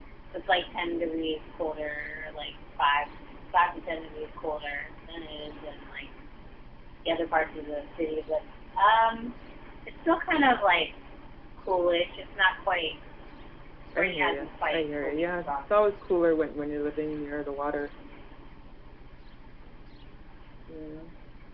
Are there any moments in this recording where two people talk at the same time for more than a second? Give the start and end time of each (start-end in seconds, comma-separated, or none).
14.0-15.5